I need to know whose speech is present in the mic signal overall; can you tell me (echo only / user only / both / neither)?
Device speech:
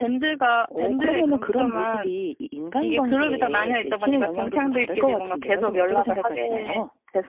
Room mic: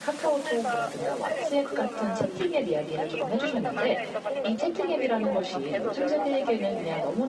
both